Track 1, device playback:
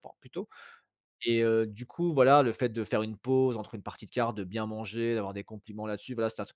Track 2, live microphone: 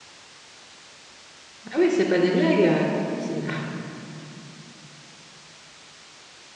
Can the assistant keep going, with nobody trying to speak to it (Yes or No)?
No